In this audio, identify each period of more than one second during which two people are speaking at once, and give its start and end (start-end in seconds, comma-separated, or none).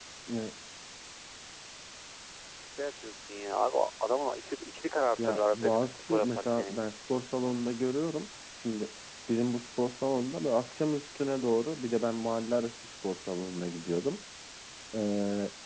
5.2-6.8